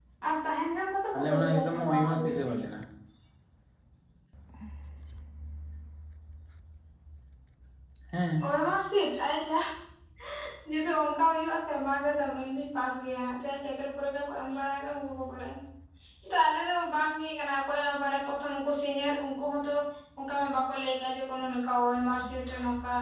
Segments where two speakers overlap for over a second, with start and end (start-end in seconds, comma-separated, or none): 1.1-2.6